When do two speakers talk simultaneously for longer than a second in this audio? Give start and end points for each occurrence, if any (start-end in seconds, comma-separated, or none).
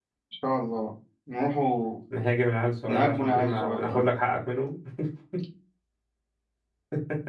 2.9-4.1